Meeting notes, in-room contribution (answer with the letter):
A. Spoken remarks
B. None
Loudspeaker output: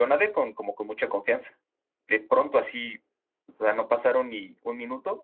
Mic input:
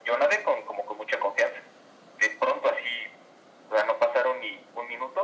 B